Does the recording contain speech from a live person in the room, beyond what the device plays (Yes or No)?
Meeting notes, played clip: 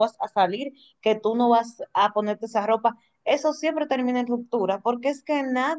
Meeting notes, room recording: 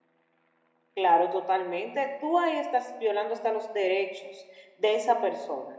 Yes